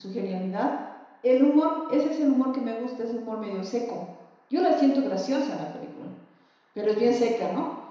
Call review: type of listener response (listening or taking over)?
listening